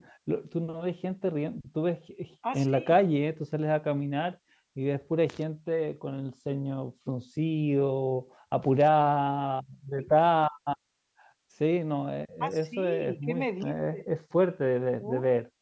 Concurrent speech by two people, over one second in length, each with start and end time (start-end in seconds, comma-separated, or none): 12.4-14.0